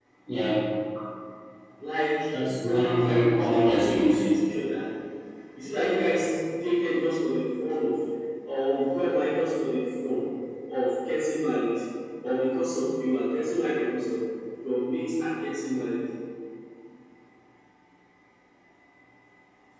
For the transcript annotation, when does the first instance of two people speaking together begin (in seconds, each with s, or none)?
2.7 s